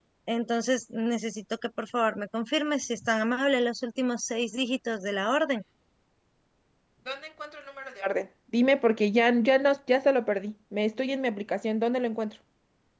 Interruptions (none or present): none